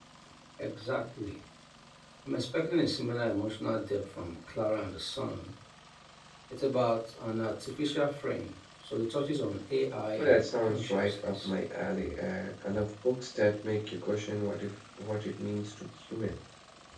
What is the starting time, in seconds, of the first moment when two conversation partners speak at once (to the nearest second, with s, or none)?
10 s